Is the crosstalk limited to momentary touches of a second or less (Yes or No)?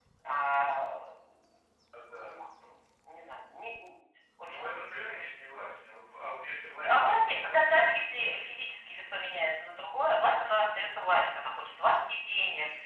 No